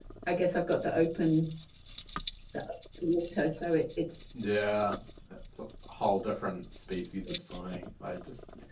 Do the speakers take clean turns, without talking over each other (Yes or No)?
Yes